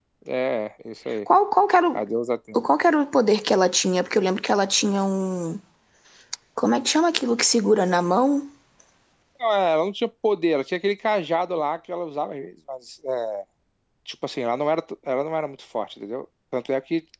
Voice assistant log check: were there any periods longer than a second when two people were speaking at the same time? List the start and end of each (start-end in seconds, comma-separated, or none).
none